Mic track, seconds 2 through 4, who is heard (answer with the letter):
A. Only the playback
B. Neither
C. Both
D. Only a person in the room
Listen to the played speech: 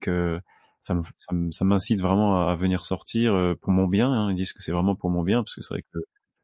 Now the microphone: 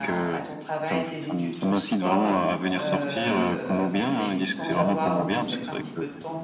C